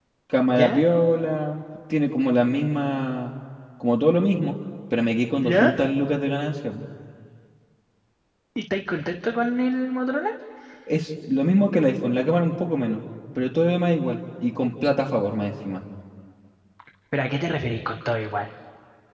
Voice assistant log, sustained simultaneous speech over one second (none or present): none